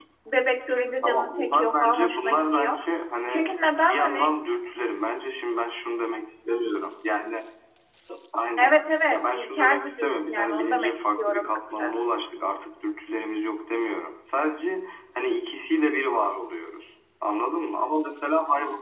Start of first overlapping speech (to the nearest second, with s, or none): 1 s